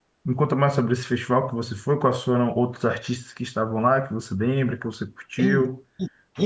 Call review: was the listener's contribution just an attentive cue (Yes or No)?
No